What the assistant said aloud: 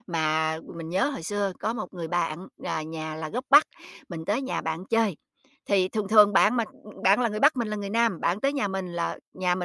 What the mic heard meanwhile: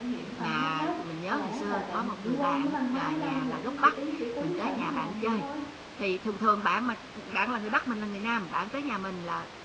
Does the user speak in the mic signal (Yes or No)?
Yes